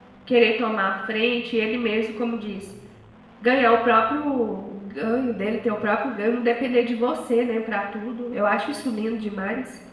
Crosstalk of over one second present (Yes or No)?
No